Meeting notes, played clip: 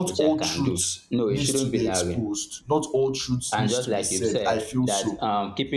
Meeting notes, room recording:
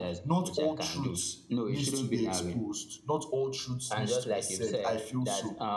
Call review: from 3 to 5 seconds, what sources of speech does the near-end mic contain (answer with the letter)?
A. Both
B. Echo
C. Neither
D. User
B